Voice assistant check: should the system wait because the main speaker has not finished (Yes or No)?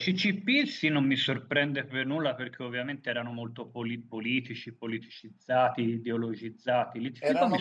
No